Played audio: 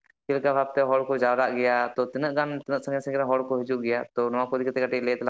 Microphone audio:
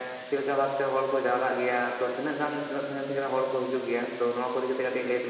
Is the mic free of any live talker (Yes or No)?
Yes